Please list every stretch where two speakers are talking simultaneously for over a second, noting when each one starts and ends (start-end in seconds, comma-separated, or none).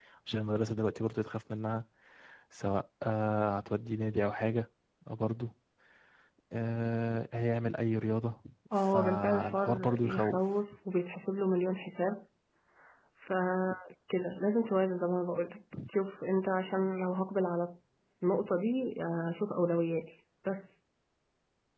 8.8-10.4